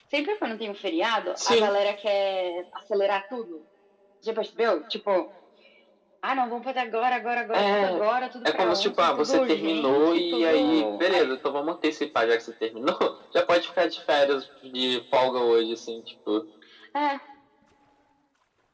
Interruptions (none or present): present